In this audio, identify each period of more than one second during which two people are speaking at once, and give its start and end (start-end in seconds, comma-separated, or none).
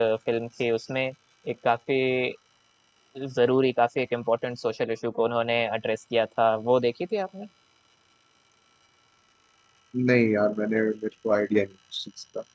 none